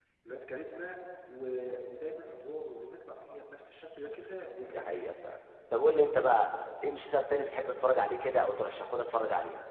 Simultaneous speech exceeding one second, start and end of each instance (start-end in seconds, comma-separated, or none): none